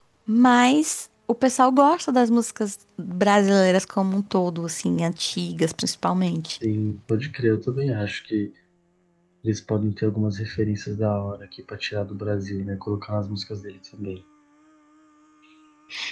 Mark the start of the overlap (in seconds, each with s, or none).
none